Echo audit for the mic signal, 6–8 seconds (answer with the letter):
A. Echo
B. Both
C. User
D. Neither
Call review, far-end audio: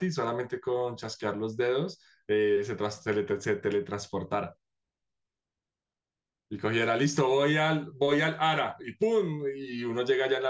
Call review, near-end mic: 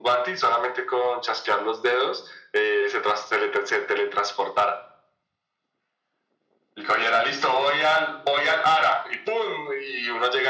A